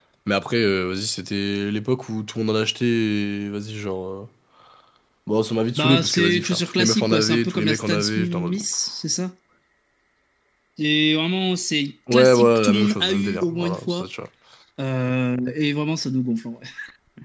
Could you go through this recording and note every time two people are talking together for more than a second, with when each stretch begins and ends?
5.8-8.6, 12.1-14.1

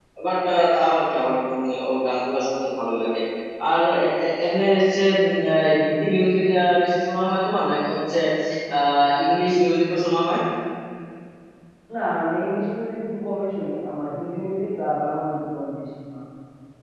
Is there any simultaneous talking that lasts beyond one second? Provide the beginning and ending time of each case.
none

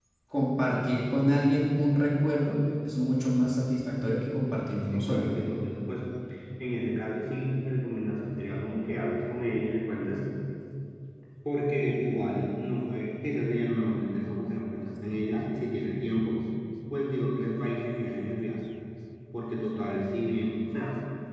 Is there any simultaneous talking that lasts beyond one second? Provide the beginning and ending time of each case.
none

